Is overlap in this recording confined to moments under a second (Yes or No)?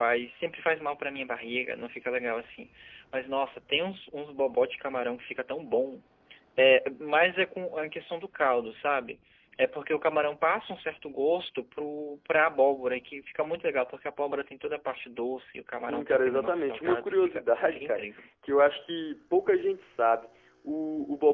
No